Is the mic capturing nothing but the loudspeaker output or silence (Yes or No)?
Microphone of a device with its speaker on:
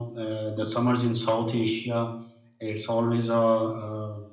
Yes